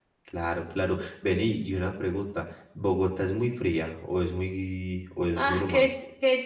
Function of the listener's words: taking over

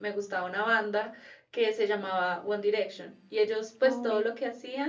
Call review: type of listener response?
listening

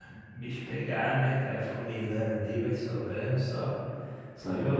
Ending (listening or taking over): taking over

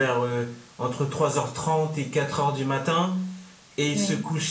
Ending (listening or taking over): listening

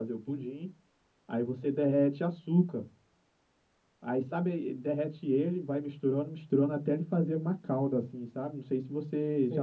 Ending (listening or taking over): taking over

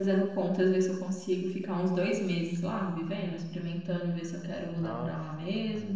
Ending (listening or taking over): taking over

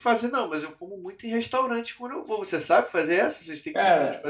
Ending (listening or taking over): taking over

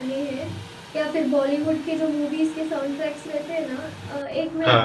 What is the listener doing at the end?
listening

